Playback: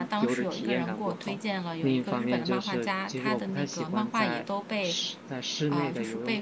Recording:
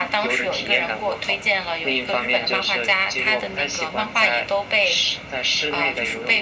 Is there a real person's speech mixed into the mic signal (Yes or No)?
No